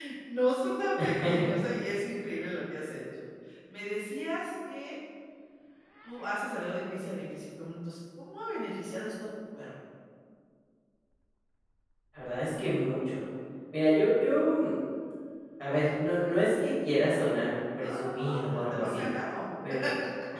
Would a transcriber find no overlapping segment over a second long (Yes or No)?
No